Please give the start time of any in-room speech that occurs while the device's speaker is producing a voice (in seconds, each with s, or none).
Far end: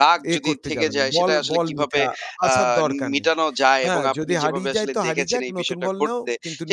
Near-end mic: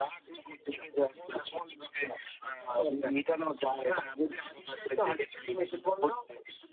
none